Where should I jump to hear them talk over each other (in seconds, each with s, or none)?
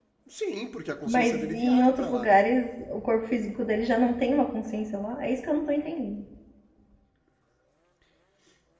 1.1 s